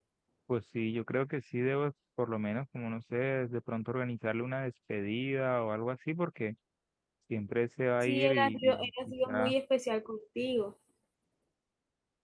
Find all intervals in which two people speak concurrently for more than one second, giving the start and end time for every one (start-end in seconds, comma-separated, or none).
8.0-9.5